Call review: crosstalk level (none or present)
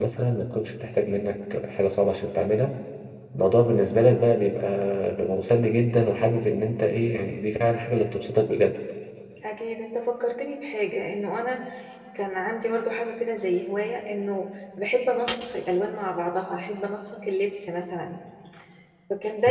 none